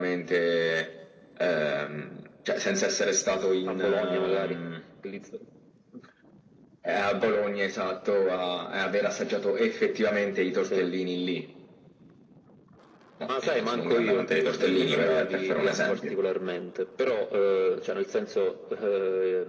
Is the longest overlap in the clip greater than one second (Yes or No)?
Yes